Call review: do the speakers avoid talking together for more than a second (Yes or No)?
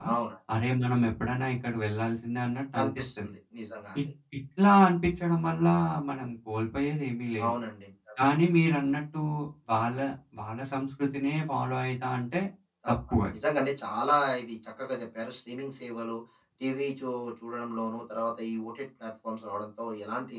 Yes